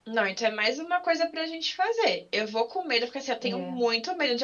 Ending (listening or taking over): listening